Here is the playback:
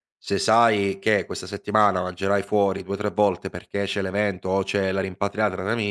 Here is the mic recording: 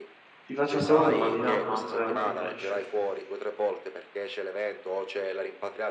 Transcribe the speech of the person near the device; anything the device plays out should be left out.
Ti faccio ancora una domandina, ma veramente flash.

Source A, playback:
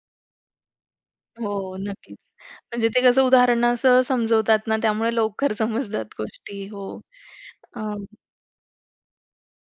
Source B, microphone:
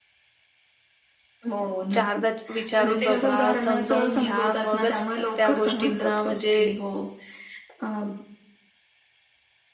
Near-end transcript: चारदा विचारून बघा, समजावून घ्या. मगच त त्या गोष्टींना म्हणजे

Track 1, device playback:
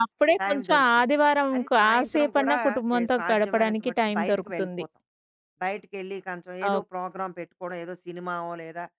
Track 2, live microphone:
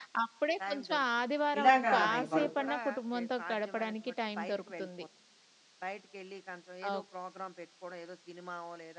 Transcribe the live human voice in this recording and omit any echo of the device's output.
ఇలాగా మేము గడుపుతున్నాం.

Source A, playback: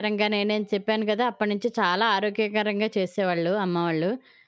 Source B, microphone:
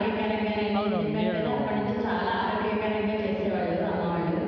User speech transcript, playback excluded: అవునవును. నీళ్ళలో పోతున్నాయి.

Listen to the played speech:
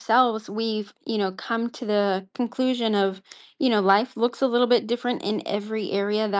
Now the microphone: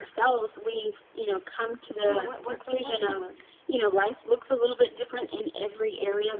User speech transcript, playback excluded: you know what works and what didn't work

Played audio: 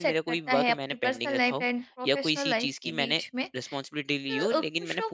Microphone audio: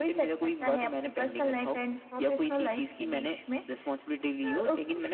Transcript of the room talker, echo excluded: none

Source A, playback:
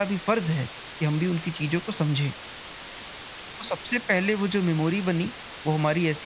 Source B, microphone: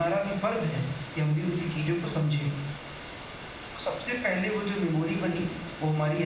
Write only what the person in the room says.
none

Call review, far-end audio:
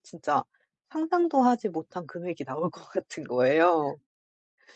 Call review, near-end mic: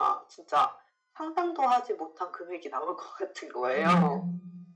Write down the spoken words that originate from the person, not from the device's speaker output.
음.

